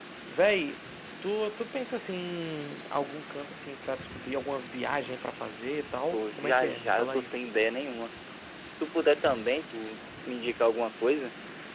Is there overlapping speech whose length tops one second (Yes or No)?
Yes